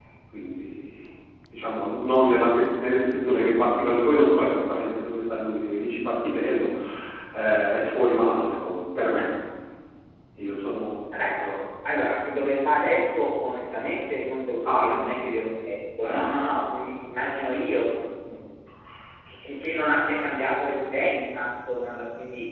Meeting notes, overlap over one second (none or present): none